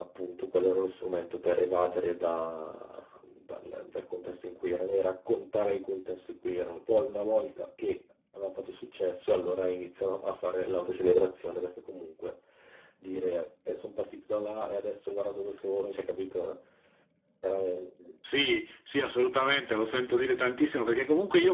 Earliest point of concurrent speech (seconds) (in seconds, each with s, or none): none